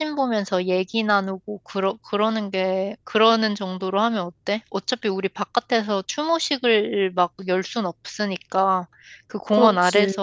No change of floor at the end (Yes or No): Yes